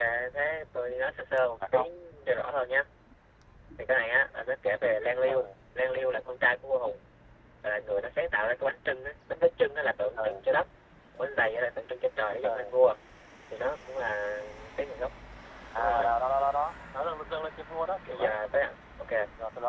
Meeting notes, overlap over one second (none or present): none